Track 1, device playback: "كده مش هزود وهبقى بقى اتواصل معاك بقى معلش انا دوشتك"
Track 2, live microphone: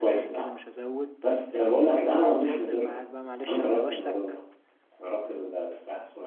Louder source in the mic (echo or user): user